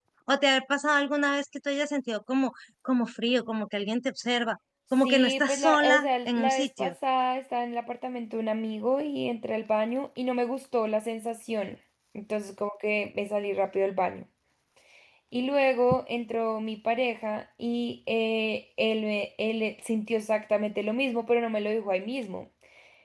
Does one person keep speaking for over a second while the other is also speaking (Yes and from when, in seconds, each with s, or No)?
Yes, from 5.0 s